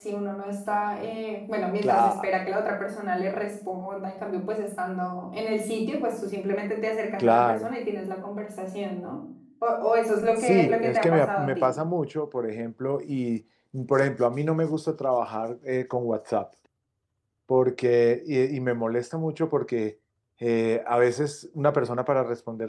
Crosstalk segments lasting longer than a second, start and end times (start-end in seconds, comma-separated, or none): 10.4-11.7